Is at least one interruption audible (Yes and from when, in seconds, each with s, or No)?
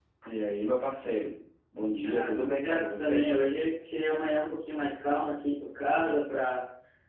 Yes, from 2.0 s